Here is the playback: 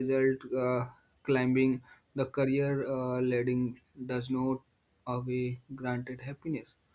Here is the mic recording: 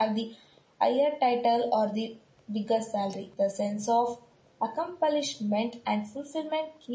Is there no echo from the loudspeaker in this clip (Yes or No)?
Yes